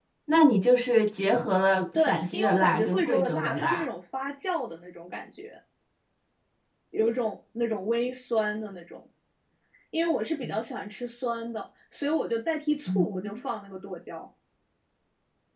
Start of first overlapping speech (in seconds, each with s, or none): 1.9 s